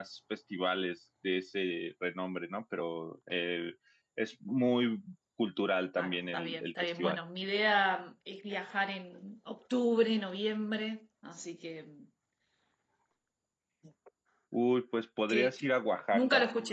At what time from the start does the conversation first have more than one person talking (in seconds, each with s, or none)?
6.0 s